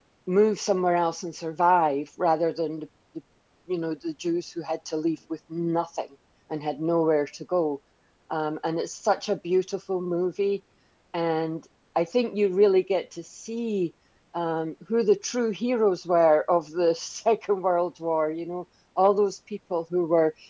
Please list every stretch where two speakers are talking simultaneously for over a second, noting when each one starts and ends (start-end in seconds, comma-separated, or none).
none